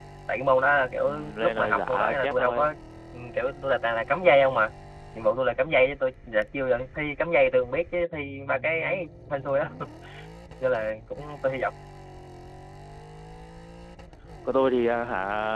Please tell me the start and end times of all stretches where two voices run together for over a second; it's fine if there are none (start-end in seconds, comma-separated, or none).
1.0-2.7